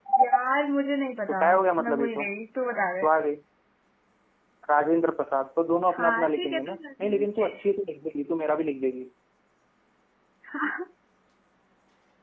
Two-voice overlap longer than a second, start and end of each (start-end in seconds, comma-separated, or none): 5.9-7.2